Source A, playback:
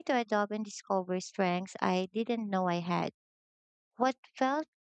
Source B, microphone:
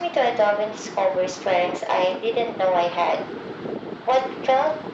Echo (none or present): present